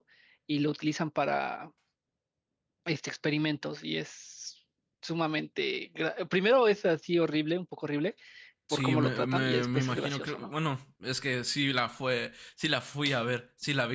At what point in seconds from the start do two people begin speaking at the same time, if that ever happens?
8.7 s

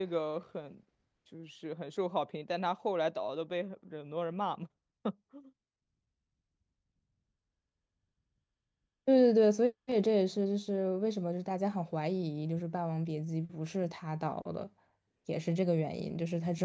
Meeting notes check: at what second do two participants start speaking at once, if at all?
none

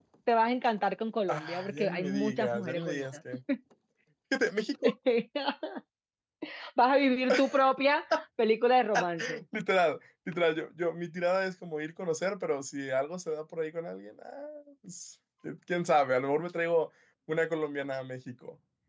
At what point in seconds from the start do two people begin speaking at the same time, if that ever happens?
1.3 s

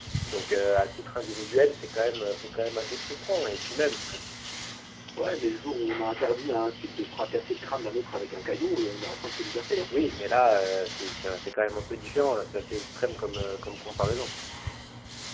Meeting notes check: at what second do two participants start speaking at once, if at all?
none

